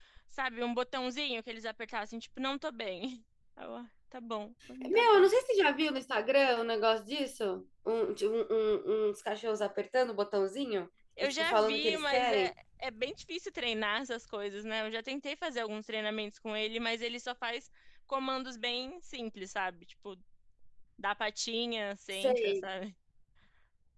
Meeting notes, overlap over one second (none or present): present